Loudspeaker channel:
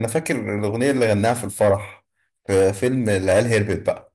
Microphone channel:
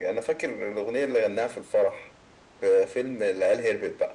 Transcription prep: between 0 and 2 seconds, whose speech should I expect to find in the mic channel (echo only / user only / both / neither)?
echo only